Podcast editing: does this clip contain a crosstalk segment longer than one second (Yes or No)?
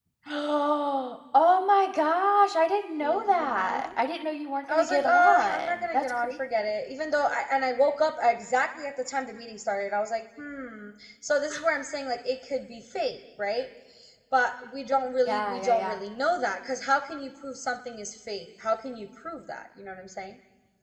Yes